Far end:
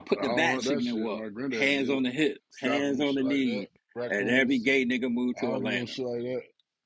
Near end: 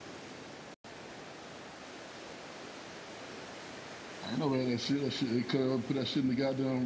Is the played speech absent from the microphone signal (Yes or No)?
Yes